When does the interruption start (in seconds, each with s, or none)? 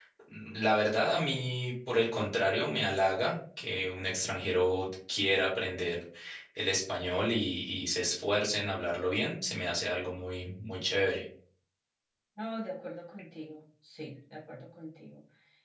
none